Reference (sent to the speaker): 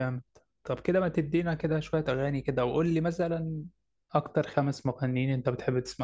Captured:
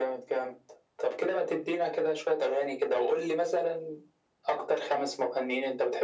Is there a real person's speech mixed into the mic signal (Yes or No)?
No